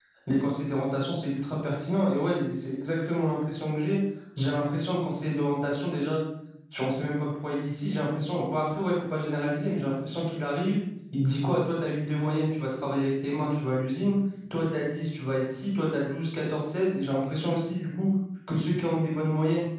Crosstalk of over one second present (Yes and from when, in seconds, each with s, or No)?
No